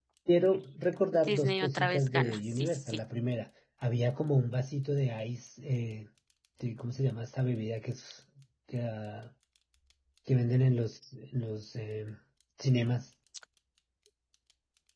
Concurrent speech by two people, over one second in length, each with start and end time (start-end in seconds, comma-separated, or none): 1.1-3.0